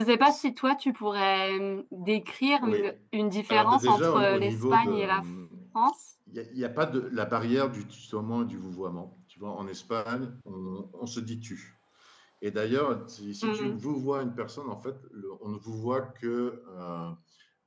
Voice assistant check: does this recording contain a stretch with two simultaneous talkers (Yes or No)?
Yes